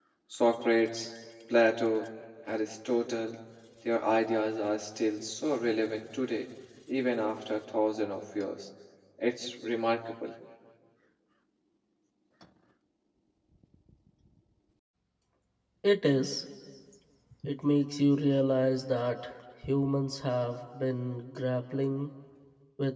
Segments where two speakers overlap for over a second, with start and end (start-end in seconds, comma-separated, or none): none